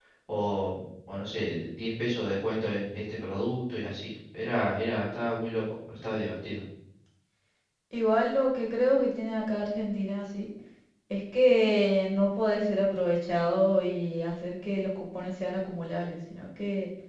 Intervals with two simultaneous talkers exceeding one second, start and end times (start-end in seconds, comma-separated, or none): none